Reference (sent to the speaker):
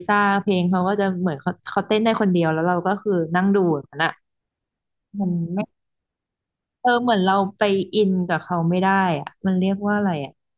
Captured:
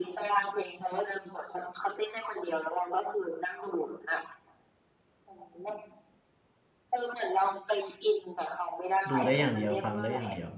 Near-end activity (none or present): present